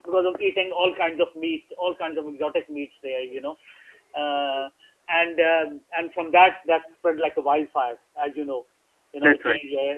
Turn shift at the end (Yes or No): No